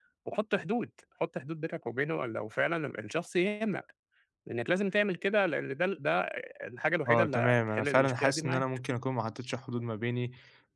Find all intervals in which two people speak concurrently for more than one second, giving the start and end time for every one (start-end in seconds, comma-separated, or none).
7.1-8.6